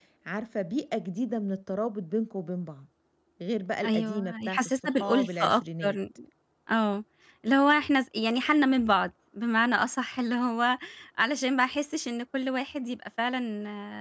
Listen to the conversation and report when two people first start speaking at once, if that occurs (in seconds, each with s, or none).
3.8 s